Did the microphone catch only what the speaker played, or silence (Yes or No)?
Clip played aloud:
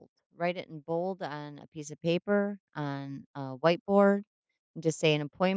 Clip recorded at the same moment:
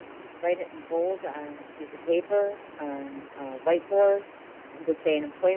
Yes